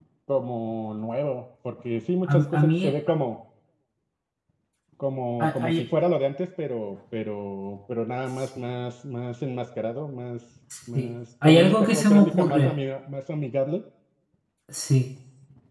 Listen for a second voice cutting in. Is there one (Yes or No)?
Yes